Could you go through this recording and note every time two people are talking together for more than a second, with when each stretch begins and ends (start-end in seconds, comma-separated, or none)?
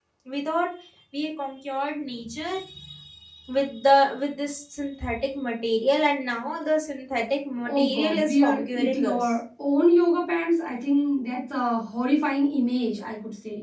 7.7-9.3